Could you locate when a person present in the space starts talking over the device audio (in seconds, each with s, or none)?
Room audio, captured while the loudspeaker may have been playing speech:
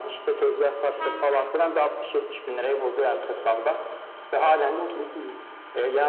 none